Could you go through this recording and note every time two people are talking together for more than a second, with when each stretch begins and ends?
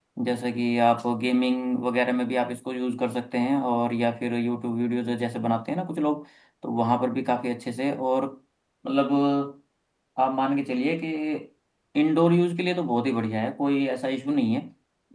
none

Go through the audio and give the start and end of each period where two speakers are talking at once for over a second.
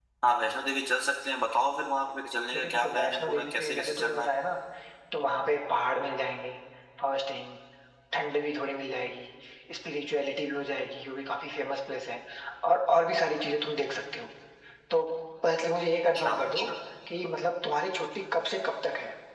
2.5-4.3

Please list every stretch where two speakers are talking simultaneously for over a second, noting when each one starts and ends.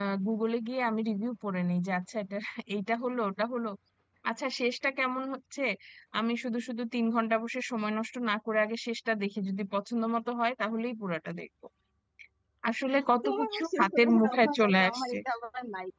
13.2-15.2

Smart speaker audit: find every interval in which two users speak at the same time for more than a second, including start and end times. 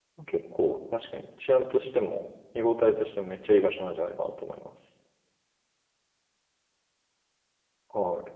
none

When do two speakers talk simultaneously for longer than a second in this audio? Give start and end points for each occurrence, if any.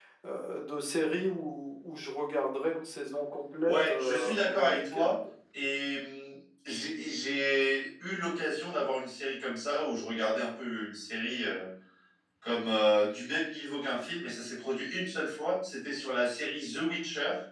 3.7-5.1

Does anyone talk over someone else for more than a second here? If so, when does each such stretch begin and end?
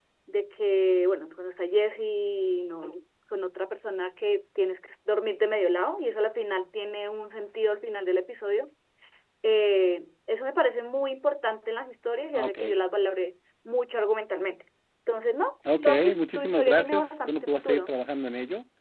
15.8-17.9

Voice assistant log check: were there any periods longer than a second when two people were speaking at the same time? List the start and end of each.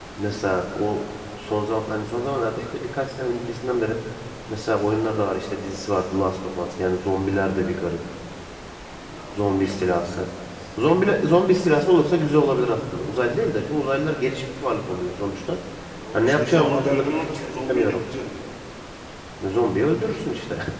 16.1-18.0

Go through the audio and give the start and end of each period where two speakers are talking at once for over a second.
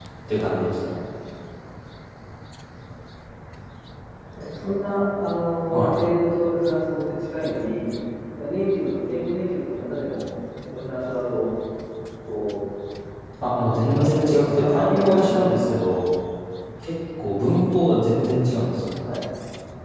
13.6-15.6

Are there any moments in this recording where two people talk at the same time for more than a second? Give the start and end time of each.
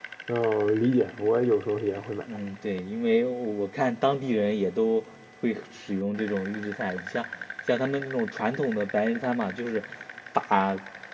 none

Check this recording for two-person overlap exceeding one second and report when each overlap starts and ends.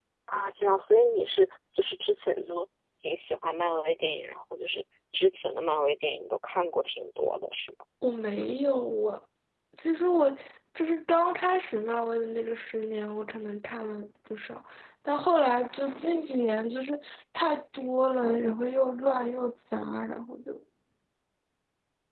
none

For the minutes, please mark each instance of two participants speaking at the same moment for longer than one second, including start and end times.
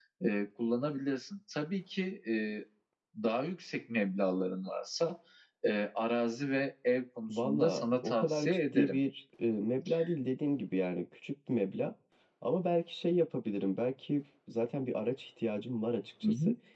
7.3-9.0

